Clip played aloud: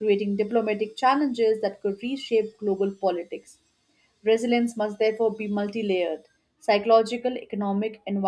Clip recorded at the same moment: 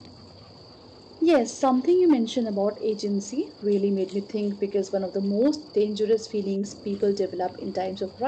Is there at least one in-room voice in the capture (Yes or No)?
Yes